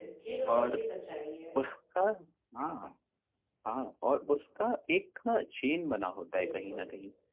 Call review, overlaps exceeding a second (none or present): none